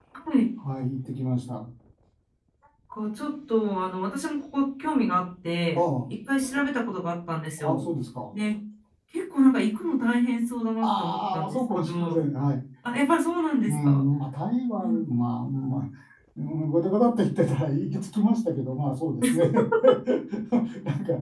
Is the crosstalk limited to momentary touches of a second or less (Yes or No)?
No